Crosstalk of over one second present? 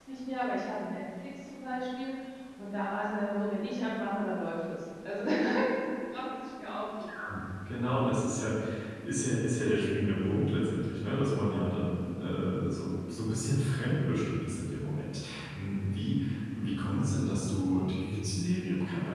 No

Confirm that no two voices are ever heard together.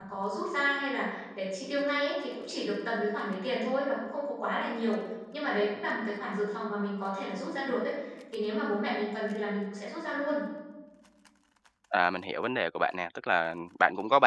Yes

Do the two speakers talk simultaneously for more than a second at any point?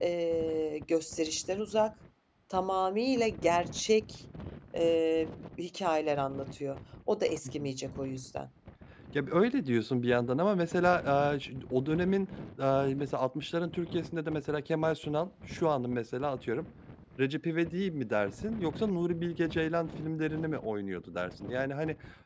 No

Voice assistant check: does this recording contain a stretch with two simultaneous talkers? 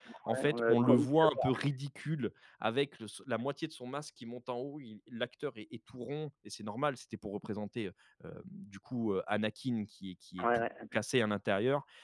Yes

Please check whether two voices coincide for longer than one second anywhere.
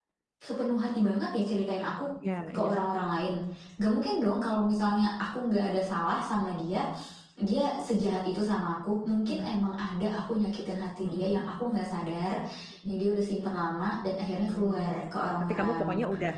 Yes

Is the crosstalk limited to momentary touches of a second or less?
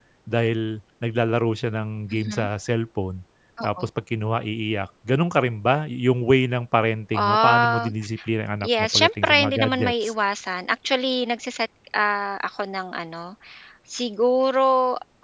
No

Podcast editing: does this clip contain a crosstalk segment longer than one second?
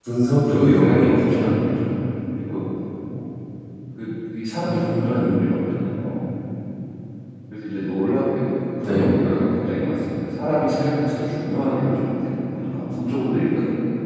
Yes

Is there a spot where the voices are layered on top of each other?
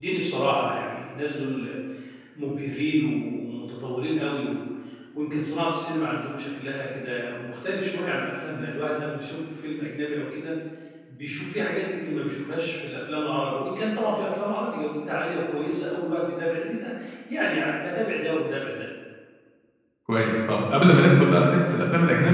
No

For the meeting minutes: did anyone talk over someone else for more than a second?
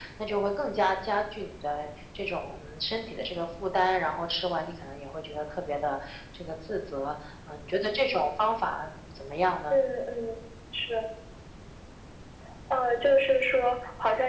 No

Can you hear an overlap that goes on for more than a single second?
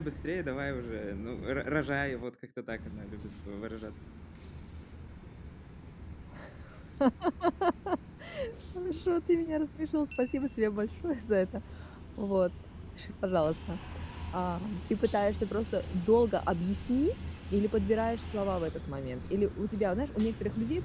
No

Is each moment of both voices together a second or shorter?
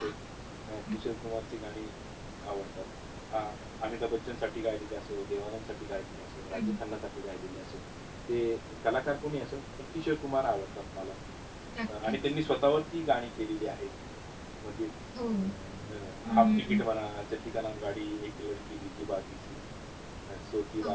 Yes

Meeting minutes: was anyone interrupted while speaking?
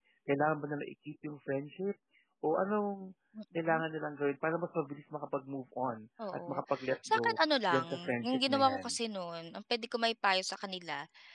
Yes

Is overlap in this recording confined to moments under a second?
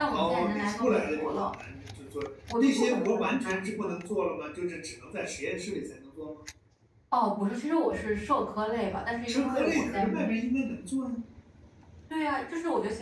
No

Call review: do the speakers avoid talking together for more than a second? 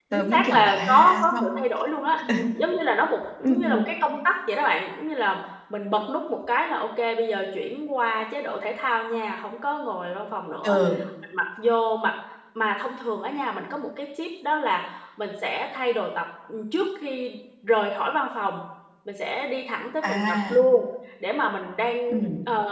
No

